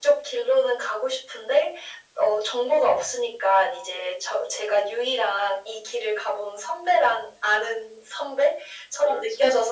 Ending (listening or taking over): listening